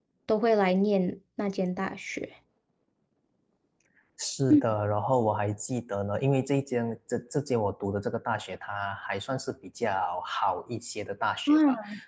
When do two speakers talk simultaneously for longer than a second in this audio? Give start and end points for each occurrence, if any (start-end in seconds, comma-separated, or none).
none